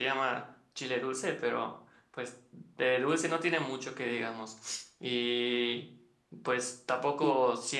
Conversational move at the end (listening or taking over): listening